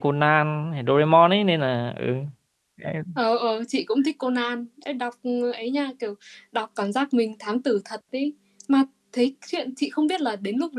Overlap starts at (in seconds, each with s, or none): none